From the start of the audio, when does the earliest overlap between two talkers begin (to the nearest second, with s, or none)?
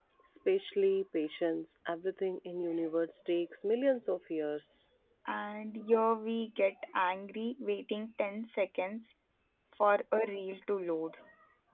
none